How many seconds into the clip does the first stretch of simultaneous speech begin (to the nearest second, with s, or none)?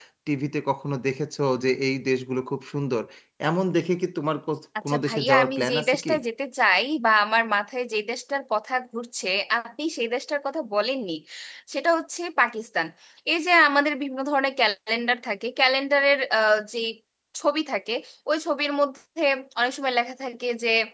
5 s